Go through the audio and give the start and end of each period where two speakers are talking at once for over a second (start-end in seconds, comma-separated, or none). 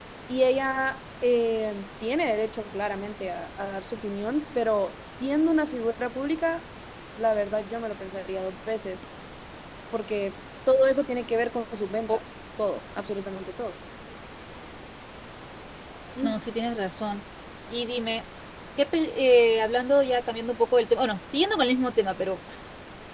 none